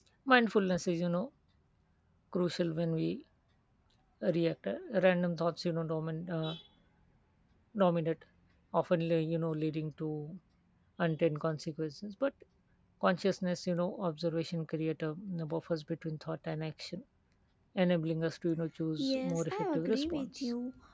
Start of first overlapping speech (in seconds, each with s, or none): 19.0 s